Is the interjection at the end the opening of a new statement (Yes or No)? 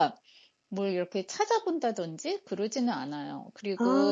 No